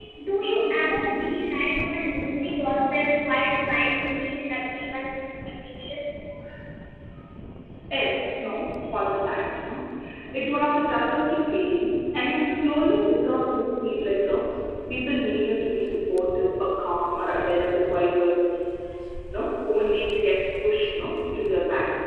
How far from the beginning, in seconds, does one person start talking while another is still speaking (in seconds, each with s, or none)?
none